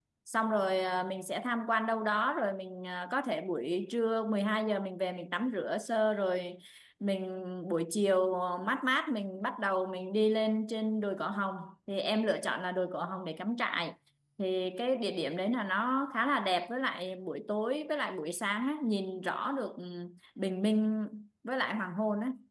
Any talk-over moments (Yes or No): No